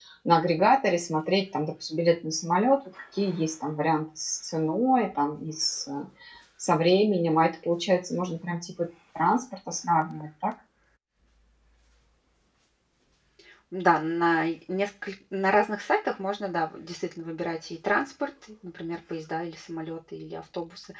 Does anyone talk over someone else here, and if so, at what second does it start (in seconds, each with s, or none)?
none